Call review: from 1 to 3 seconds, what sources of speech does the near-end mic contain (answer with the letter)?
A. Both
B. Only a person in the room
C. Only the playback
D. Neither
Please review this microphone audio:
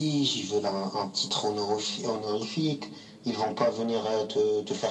C